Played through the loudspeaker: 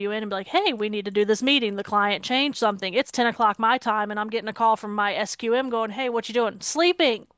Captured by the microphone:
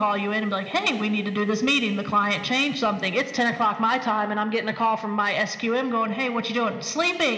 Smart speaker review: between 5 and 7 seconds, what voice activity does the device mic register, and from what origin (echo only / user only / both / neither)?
echo only